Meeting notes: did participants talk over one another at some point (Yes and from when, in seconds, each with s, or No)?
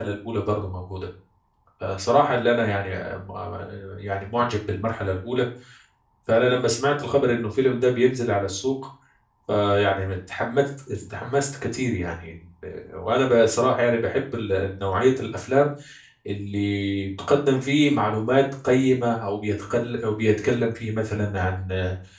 No